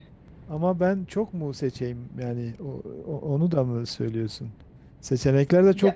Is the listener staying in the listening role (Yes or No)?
Yes